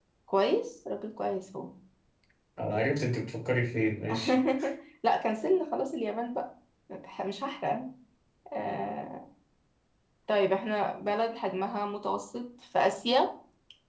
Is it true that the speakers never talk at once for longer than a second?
Yes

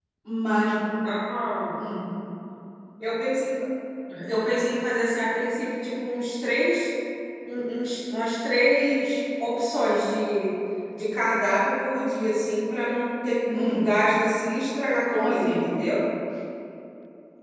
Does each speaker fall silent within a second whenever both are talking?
Yes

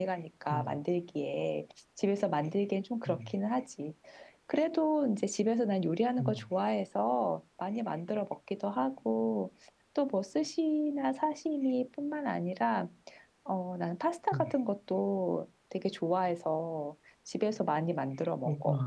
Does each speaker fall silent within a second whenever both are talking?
Yes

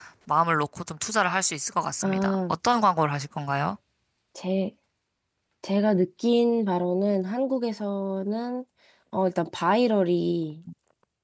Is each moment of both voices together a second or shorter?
Yes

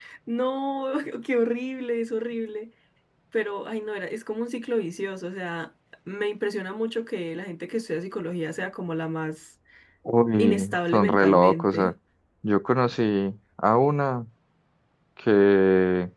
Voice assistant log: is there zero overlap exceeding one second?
No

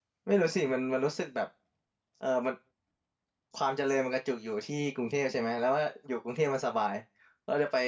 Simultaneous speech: No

